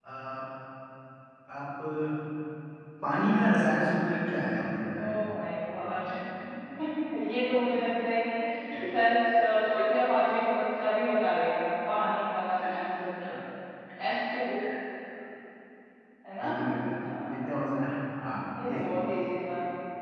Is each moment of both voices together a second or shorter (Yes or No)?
Yes